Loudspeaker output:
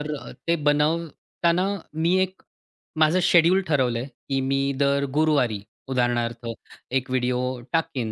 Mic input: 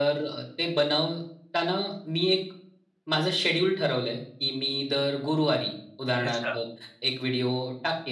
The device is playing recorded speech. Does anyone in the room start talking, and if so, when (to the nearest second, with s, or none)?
6 s